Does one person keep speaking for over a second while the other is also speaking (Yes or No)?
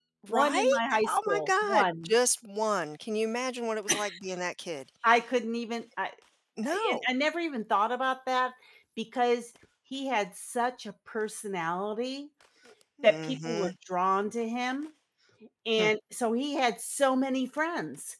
Yes